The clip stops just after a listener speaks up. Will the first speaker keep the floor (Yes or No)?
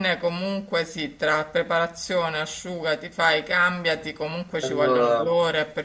Yes